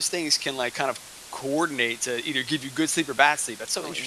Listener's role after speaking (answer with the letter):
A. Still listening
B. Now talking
B